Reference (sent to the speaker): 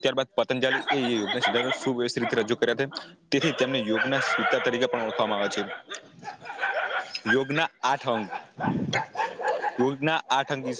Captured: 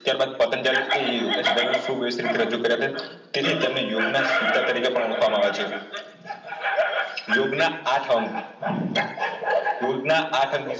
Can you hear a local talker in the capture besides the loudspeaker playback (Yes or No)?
No